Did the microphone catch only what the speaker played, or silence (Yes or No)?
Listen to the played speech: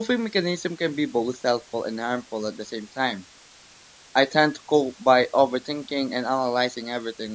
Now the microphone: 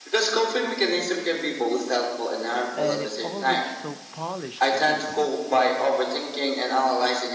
No